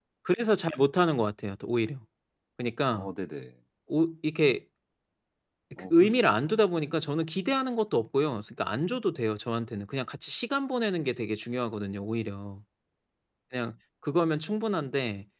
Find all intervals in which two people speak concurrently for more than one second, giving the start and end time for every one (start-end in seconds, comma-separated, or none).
5.8-7.0